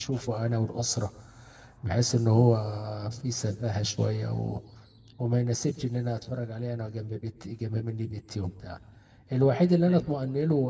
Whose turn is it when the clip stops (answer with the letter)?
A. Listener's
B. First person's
B